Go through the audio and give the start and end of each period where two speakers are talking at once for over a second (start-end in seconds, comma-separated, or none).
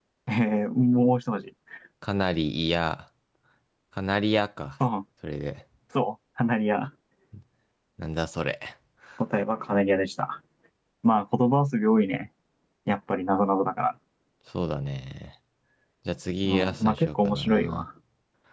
16.4-17.9